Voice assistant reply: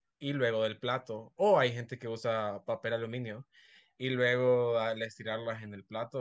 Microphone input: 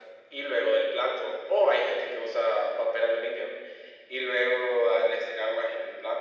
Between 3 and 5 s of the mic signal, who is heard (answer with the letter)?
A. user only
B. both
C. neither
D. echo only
D